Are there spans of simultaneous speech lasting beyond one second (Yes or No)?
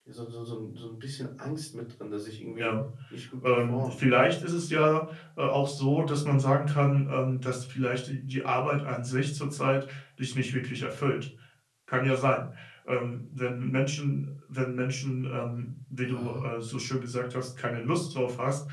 No